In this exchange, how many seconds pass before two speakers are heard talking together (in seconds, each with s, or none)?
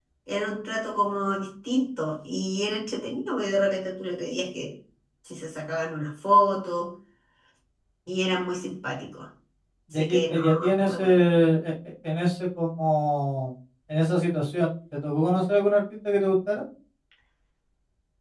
9.9 s